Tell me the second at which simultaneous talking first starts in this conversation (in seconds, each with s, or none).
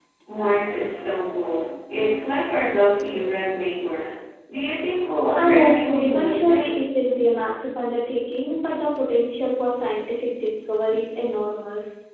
5.4 s